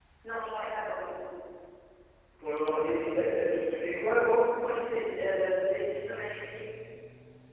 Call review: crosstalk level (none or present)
none